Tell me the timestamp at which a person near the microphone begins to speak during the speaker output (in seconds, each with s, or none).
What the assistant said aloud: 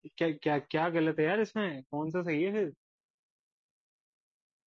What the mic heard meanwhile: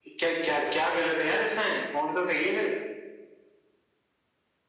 none